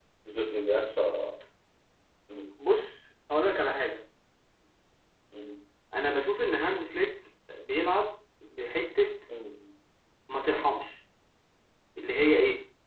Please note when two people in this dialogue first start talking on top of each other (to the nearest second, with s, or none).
none